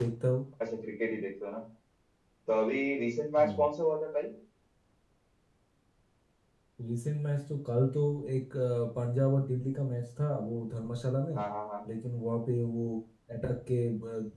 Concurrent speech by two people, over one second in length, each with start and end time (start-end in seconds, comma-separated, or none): none